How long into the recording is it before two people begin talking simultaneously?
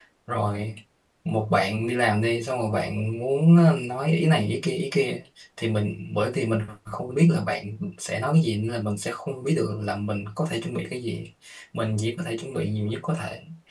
none

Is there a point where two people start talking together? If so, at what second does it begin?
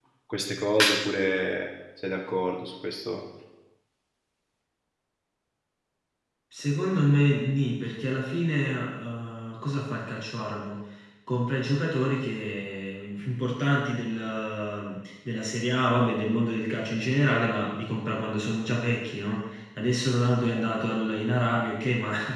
none

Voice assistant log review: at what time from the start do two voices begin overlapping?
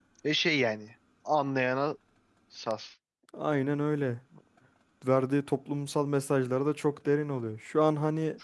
none

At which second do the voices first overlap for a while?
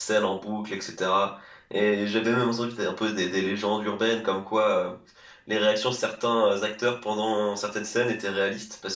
none

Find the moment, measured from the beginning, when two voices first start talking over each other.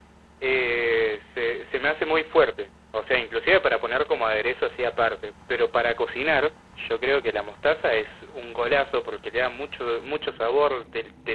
none

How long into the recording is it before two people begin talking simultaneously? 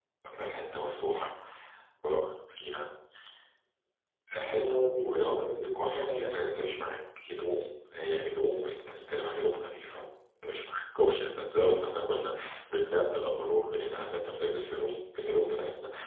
4 s

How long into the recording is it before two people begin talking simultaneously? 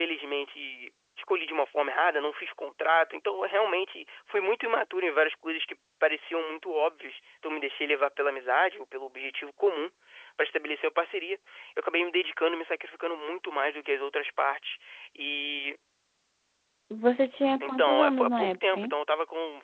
18 s

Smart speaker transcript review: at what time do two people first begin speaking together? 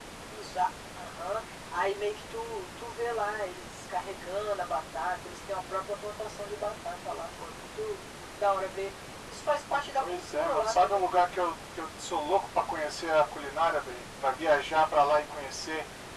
10 s

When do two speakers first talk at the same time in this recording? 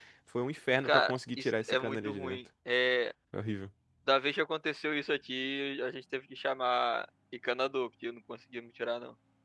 1 s

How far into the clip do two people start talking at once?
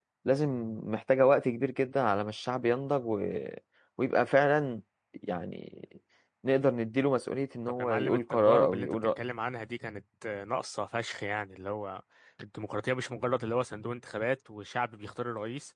8 s

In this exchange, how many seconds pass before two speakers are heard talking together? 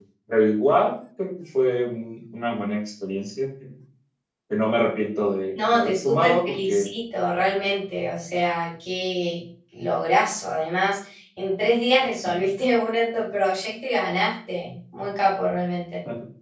6 s

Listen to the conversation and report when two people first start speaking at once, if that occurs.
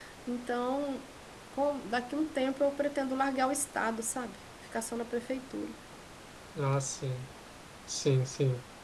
none

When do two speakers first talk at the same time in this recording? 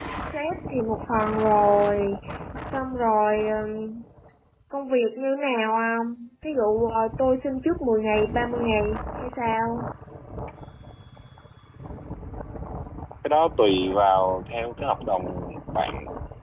none

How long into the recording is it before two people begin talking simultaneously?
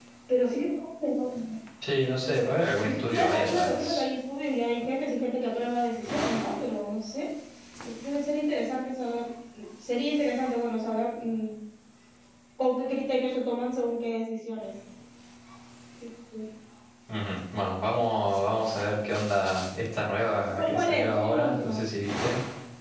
3 s

